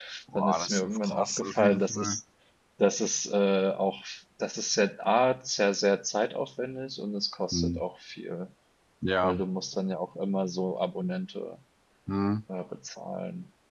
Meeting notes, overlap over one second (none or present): present